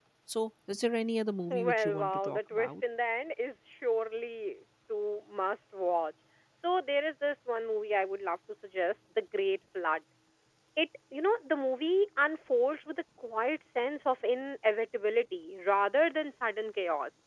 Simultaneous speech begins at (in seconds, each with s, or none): 1.5 s